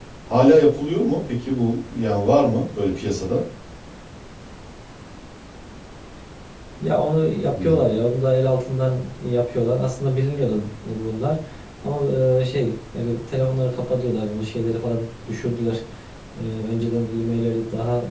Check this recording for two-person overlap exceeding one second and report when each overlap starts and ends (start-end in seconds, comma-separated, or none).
none